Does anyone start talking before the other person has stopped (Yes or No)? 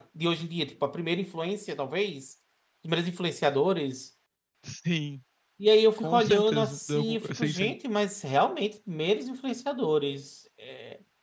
Yes